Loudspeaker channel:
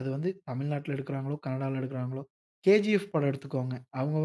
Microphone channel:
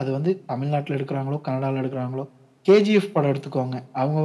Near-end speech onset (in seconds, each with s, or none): none